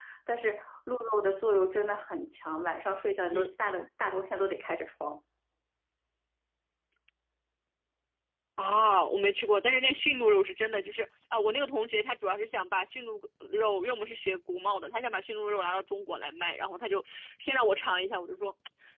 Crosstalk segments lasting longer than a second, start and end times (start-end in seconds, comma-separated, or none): none